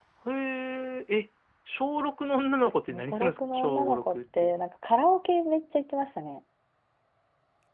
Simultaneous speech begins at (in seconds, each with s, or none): 2.9 s